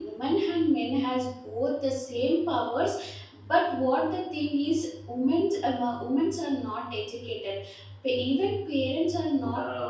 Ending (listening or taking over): listening